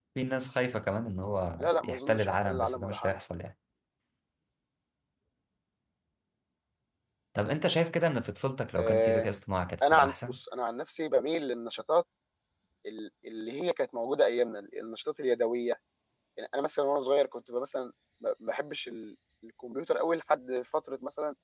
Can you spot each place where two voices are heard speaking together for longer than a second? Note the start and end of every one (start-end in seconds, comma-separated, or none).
1.6-3.1